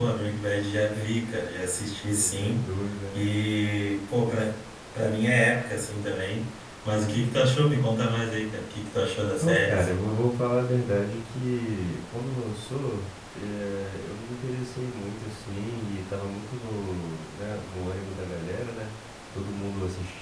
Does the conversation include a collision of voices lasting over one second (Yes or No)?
No